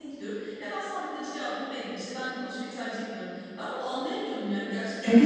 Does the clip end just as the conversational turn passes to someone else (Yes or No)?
Yes